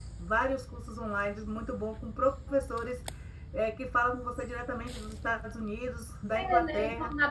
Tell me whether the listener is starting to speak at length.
Yes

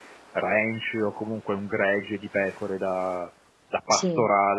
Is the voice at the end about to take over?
No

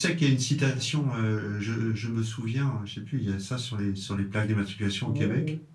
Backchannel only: No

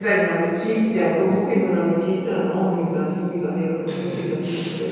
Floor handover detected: Yes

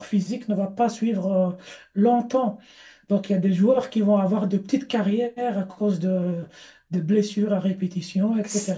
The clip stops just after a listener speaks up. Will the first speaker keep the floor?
Yes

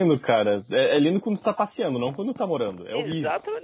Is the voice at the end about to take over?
Yes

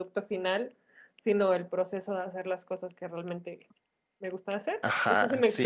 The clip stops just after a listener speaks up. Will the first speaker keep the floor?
No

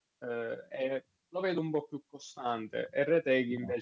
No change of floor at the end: Yes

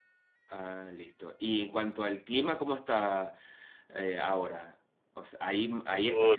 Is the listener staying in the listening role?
Yes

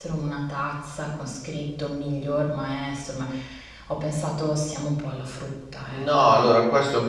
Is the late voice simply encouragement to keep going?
No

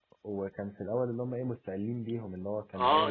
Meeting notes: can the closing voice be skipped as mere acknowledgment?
No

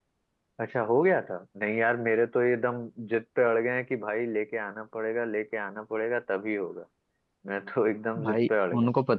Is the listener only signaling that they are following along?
No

